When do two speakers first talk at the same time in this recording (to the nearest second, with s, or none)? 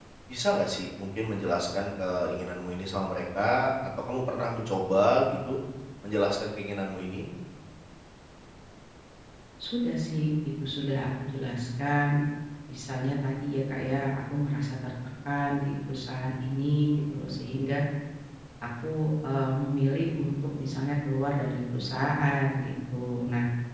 none